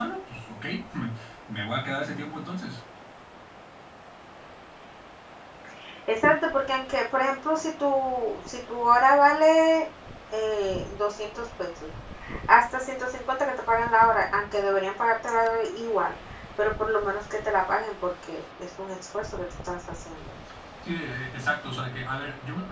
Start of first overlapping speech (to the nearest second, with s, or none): none